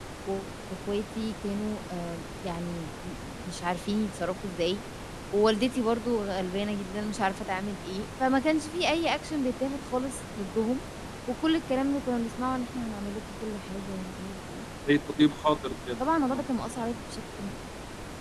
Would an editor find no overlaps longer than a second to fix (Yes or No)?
Yes